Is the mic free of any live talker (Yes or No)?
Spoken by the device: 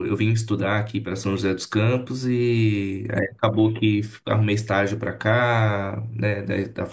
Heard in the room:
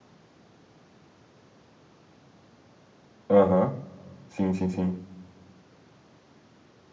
No